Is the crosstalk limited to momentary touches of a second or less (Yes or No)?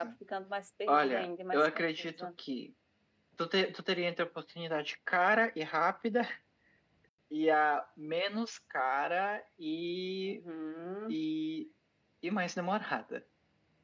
No